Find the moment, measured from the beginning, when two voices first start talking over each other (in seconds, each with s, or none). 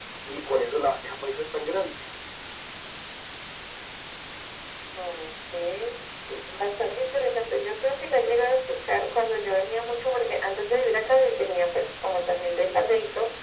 none